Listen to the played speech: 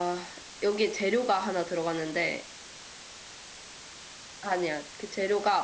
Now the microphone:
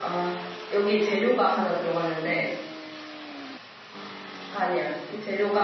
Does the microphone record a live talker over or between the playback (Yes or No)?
No